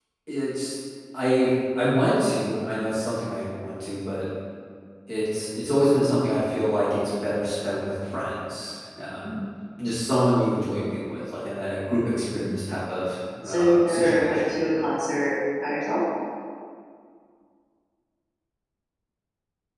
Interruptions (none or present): present